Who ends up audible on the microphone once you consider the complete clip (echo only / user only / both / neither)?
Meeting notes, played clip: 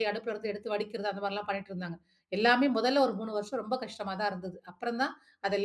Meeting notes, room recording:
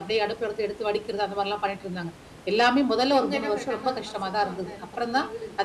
both